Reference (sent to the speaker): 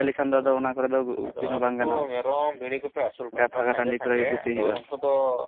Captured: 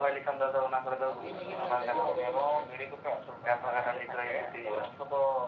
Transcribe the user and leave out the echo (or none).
ᱟᱹᱛᱤᱧ ᱞᱟᱹᱜᱤᱫ ᱨᱮᱱᱟᱜ ᱡᱟᱭᱜᱟ ᱠᱚᱫᱚ ᱢᱮᱱᱟᱜ ᱜᱮᱭᱟ᱾